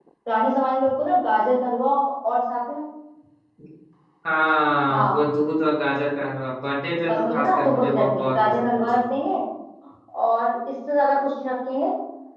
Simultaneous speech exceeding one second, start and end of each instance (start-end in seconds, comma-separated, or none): 7.1-9.0